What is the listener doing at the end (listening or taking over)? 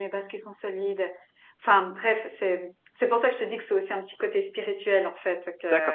taking over